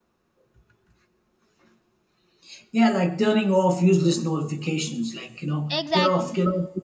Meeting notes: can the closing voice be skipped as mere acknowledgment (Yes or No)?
Yes